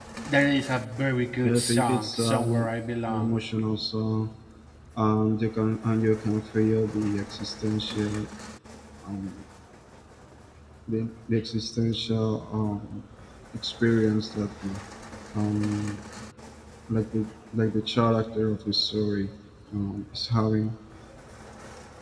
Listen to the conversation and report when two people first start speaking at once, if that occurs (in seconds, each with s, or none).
1.4 s